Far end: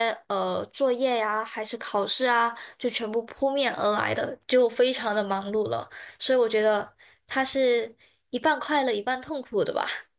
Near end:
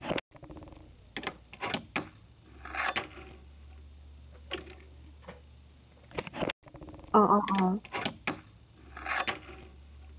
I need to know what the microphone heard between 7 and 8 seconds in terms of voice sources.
user only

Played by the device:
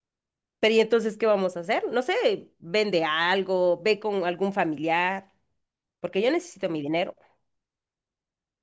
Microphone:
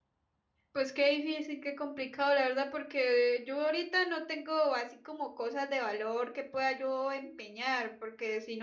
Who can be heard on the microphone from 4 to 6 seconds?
user only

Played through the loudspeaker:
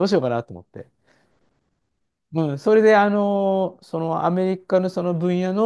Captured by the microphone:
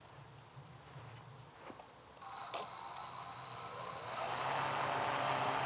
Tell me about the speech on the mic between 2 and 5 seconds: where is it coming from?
neither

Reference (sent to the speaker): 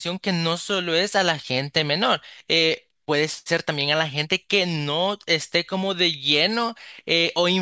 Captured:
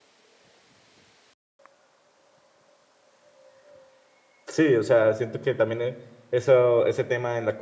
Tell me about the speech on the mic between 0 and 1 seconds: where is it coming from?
neither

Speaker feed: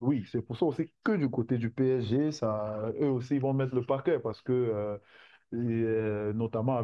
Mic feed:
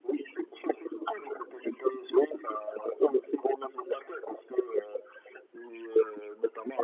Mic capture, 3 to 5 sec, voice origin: echo only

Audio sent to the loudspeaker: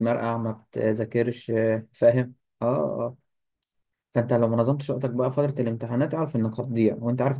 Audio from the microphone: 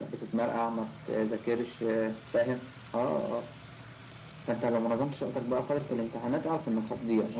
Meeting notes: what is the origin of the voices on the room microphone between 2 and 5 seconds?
echo only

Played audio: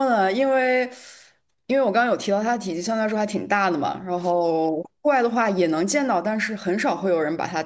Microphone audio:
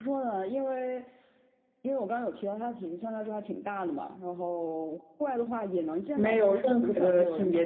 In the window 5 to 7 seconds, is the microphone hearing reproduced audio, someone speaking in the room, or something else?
both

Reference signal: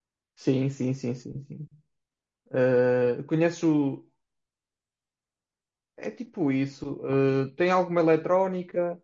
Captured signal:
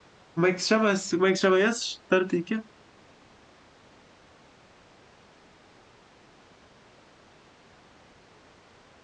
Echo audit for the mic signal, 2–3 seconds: user only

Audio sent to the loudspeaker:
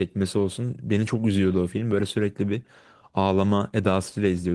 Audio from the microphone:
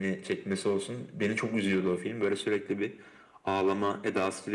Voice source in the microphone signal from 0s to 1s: echo only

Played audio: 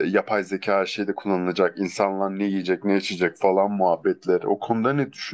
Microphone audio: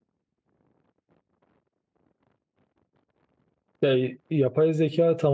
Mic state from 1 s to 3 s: neither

